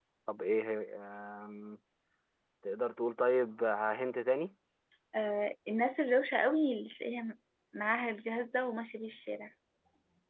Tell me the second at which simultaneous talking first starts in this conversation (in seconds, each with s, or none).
none